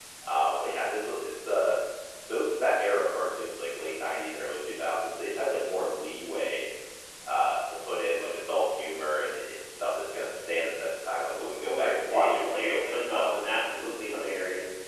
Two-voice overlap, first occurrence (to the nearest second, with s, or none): 12 s